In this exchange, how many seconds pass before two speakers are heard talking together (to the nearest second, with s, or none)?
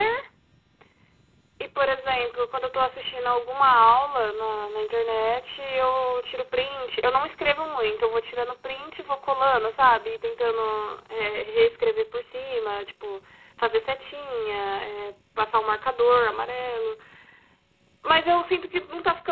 none